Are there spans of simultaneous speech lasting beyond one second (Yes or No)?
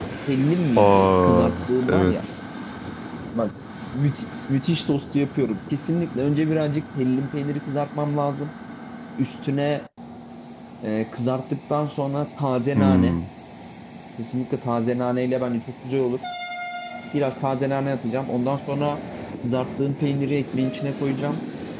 Yes